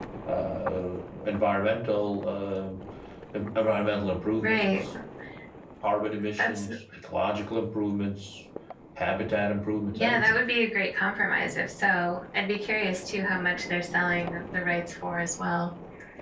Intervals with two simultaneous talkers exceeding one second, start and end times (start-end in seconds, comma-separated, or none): none